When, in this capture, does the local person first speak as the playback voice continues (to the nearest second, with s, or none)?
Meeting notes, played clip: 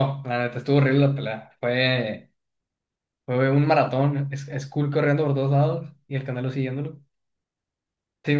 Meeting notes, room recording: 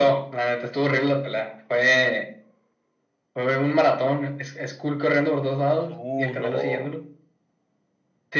6 s